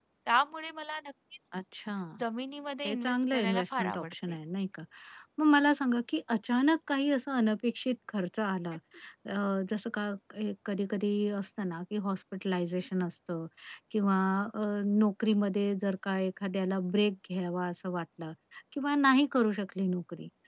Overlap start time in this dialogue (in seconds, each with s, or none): 2.9 s